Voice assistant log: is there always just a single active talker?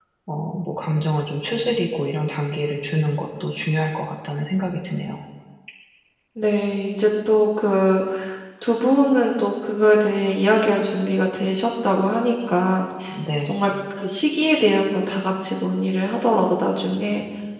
Yes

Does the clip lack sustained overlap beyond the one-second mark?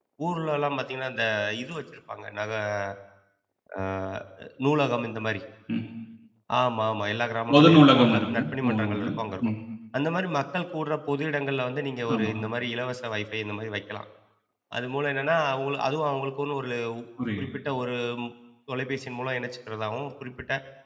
No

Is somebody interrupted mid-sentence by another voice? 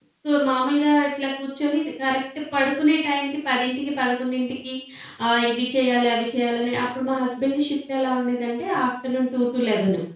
No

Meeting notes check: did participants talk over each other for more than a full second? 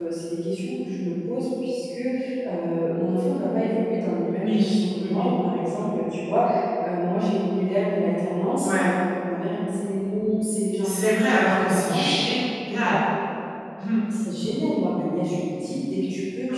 Yes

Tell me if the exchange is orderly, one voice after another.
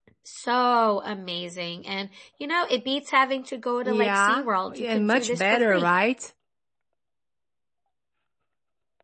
No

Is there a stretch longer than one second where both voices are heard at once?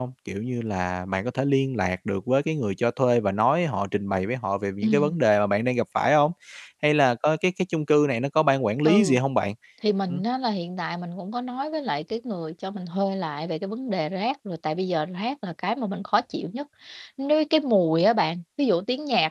No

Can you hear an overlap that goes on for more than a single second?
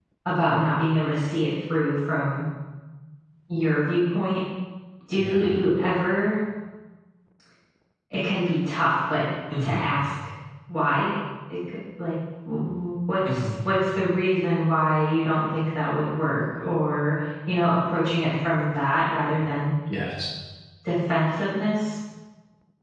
No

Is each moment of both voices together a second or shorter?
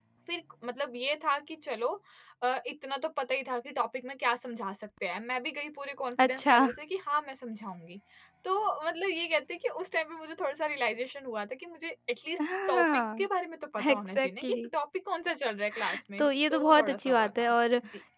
No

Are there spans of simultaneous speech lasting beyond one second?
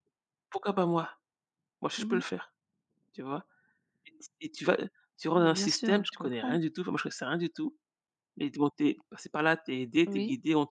Yes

